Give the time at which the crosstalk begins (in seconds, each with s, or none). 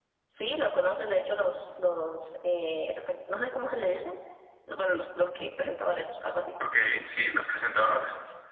none